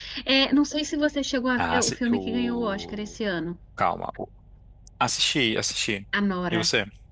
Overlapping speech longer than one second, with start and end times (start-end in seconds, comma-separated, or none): 1.6-3.1